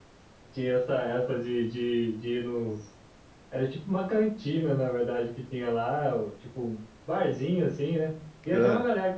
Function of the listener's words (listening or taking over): listening